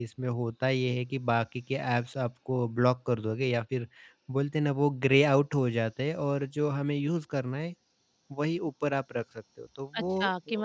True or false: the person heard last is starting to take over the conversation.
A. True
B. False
A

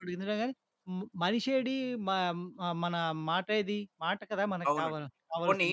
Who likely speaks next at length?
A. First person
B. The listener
B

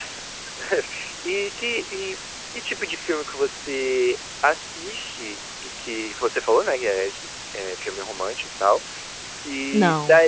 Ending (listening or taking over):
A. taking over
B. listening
B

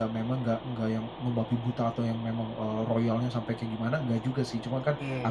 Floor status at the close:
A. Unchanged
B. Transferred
A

